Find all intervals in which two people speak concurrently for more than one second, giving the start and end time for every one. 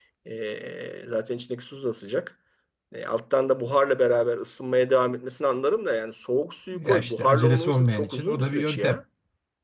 6.7-9.0

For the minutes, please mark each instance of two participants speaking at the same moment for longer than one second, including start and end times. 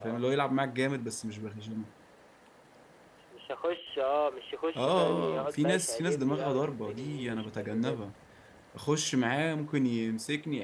4.8-8.0

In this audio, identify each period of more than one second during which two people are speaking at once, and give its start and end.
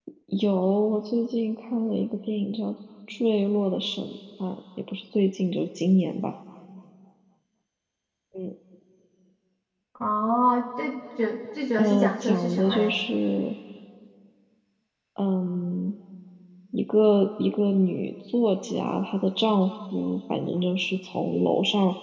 11.8-13.0

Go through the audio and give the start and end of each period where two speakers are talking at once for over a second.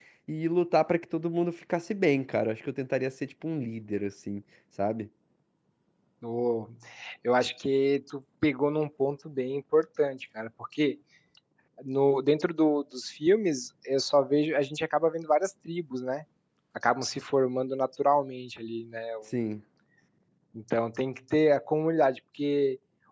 none

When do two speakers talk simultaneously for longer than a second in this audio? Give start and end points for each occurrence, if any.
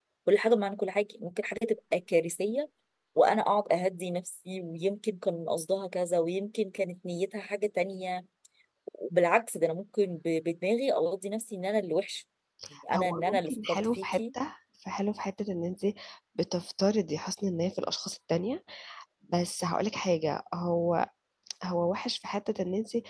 12.9-14.2

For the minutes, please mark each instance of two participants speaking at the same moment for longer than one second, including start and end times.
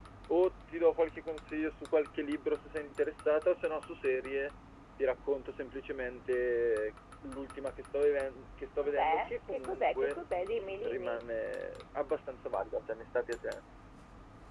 8.8-10.2

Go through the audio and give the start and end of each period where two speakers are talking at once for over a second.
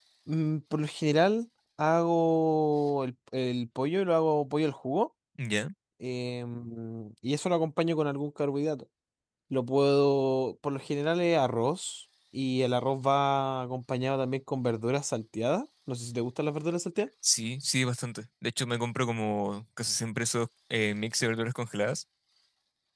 none

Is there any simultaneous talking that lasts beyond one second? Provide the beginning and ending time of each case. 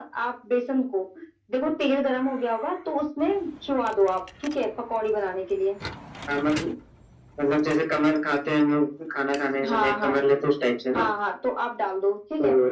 none

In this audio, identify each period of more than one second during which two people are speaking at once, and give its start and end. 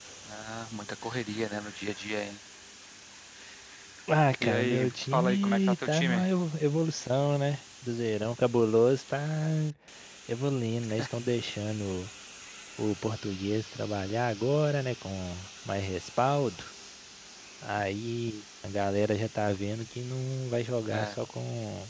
4.4-6.2

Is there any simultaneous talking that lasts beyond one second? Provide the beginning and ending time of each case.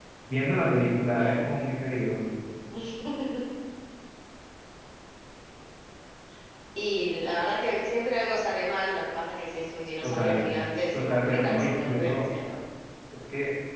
10.9-12.3

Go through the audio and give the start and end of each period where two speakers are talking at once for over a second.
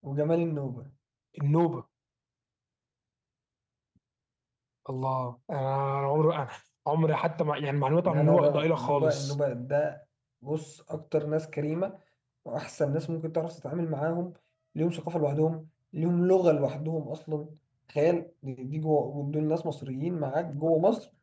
8.1-9.3

